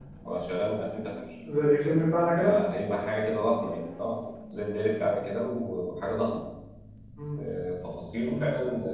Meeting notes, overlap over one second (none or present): none